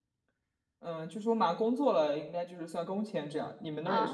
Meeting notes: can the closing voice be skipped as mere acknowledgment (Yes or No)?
No